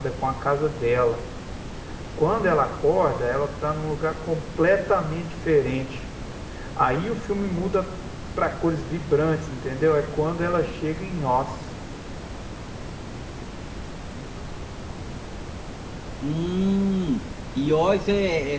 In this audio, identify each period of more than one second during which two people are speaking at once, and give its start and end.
none

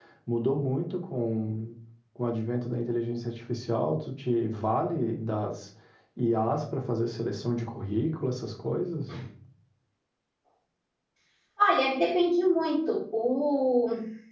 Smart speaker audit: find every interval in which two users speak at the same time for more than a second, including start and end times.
none

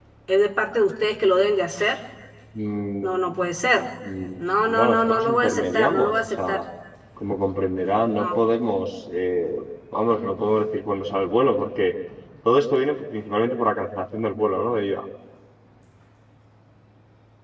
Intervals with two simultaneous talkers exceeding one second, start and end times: 4.4-6.5

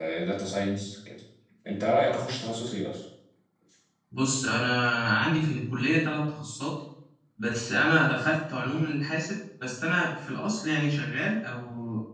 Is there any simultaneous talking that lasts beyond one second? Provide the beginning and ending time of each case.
none

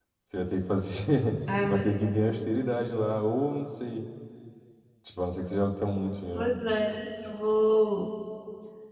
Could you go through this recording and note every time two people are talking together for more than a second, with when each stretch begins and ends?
none

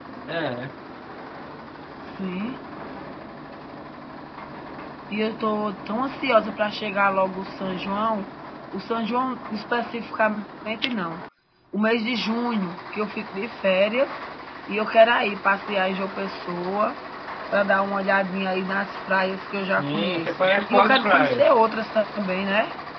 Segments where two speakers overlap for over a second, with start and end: 19.8-21.5

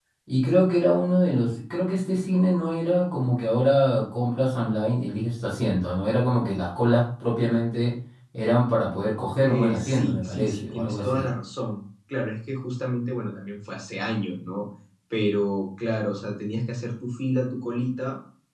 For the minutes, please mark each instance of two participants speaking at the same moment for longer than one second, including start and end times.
9.4-11.3

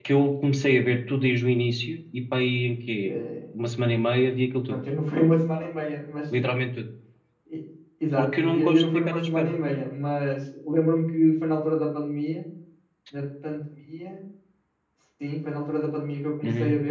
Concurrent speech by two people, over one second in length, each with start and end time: 8.2-9.6

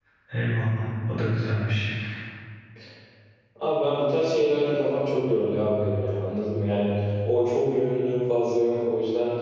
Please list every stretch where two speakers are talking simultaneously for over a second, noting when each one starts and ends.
none

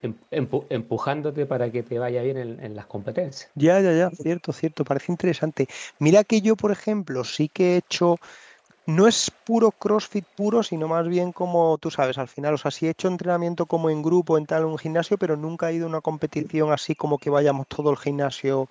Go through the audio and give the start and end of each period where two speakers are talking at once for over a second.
none

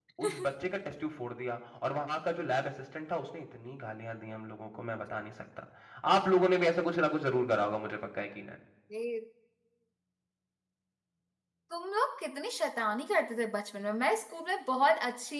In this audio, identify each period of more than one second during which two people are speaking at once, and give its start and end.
none

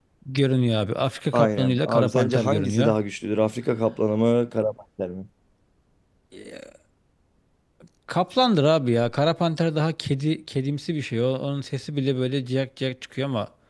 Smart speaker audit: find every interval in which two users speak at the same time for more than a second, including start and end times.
1.3-2.9

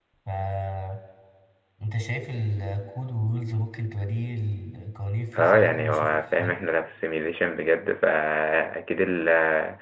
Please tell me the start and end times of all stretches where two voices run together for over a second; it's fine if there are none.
5.3-6.6

